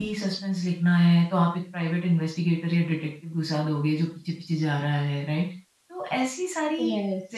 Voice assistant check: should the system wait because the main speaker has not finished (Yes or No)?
Yes